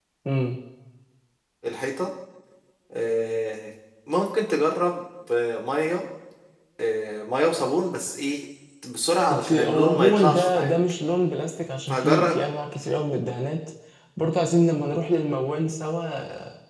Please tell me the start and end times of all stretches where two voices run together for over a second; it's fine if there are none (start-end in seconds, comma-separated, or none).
9.3-10.8